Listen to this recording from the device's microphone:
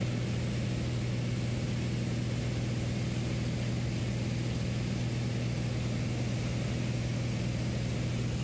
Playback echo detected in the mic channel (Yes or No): No